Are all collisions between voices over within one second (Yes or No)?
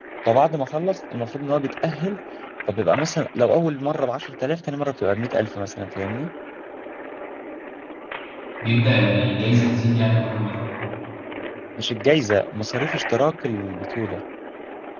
Yes